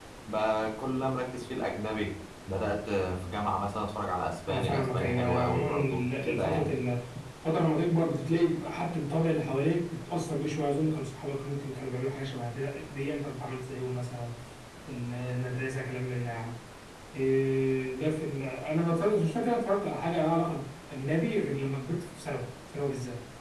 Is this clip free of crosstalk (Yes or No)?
No